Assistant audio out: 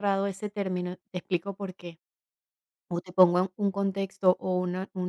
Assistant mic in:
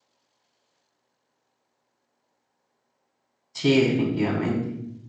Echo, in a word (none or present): none